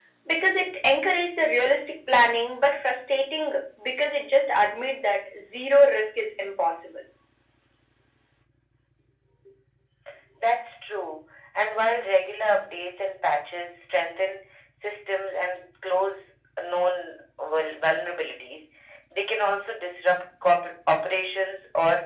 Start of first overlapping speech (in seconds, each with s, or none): none